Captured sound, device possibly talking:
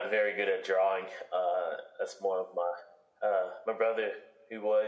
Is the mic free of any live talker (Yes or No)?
Yes